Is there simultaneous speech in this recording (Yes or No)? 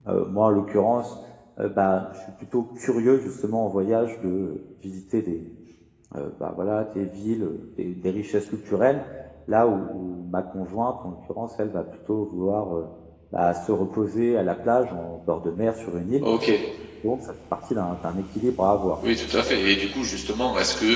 No